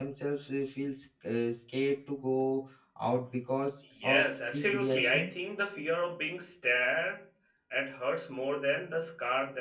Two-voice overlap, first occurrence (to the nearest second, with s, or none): 4 s